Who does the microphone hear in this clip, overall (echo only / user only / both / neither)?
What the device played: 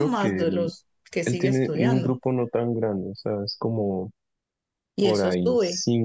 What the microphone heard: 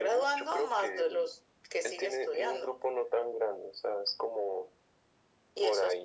echo only